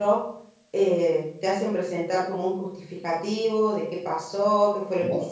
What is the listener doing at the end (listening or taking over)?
listening